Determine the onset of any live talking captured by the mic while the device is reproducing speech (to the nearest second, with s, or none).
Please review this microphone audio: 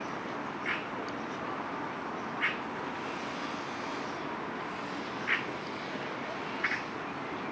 none